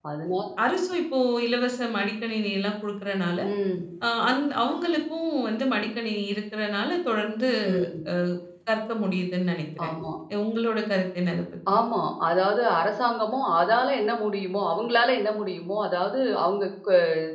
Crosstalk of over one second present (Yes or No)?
No